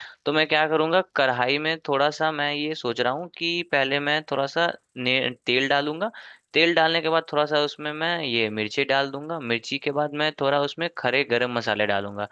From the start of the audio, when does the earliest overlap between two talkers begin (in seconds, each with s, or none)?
none